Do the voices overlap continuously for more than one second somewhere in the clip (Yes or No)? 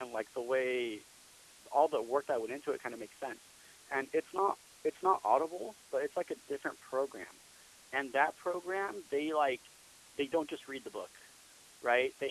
No